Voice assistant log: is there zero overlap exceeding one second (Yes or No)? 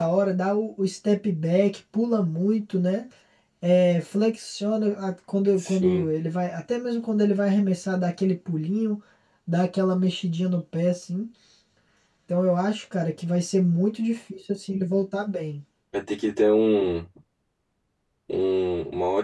Yes